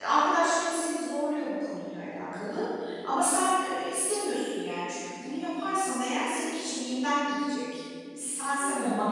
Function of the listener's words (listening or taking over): listening